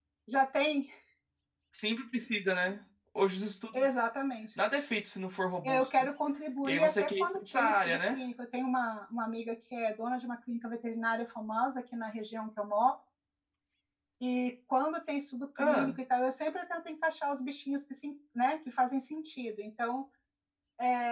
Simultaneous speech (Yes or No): Yes